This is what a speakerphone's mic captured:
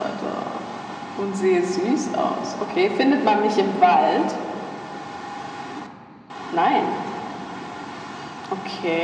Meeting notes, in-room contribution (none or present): none